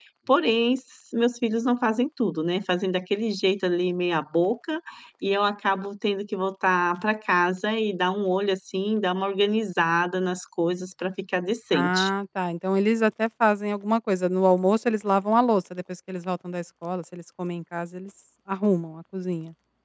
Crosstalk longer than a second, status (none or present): none